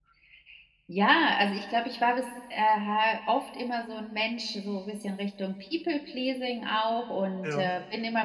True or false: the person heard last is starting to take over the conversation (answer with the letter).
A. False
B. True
A